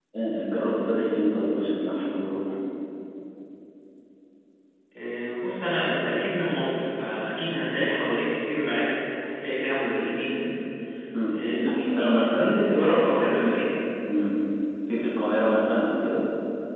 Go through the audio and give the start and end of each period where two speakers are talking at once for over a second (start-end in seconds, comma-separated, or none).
11.3-12.6